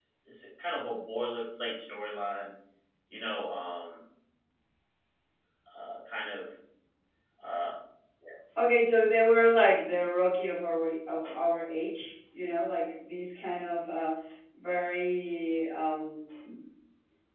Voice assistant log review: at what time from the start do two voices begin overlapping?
none

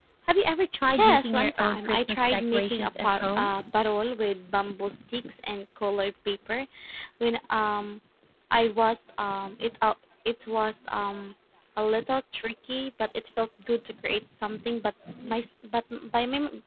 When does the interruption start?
1.0 s

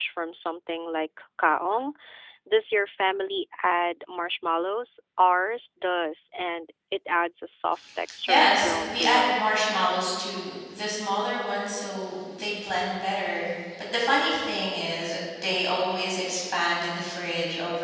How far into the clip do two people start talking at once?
8.3 s

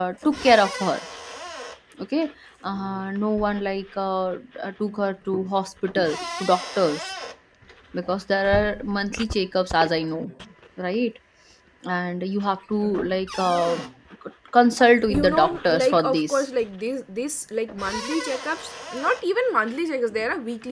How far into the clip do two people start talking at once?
15.1 s

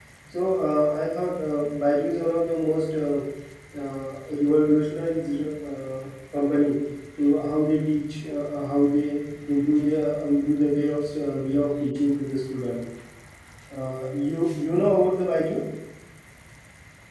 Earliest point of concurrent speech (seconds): none

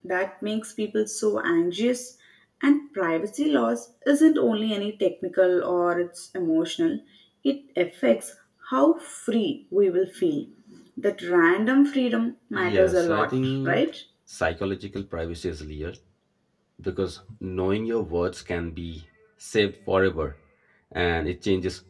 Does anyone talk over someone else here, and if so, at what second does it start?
12.6 s

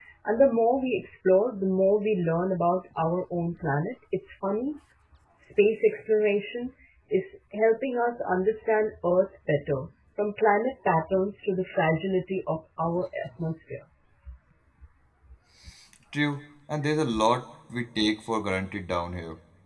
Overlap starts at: none

